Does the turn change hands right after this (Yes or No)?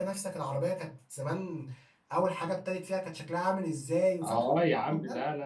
Yes